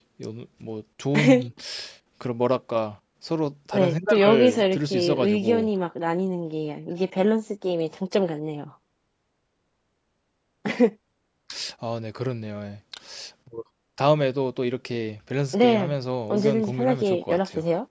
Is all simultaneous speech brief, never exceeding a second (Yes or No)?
No